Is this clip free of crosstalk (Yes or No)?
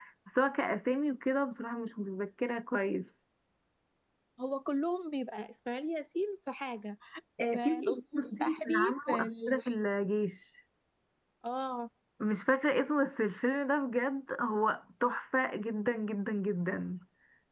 No